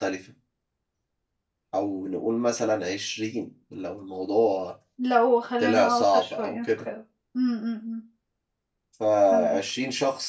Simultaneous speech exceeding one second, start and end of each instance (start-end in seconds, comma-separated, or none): 5.6-6.9